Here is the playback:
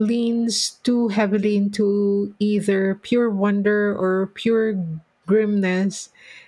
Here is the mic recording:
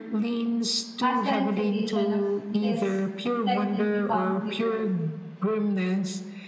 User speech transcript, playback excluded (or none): as the implication of this technique become clearer.